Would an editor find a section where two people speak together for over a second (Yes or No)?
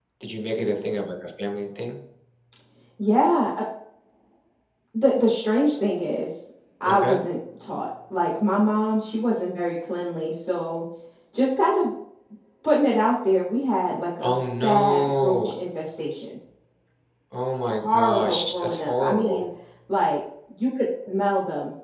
Yes